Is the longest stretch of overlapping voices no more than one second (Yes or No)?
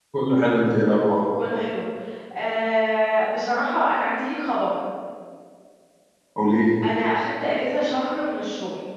Yes